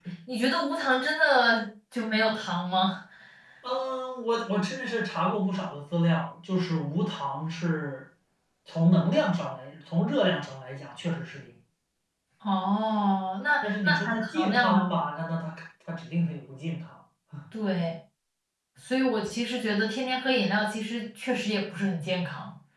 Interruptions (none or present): present